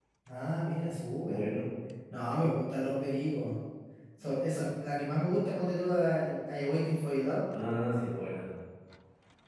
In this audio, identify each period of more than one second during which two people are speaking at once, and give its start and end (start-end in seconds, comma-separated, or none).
none